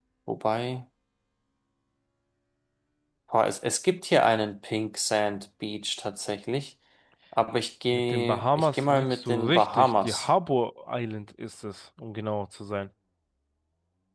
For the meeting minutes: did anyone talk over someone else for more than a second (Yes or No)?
Yes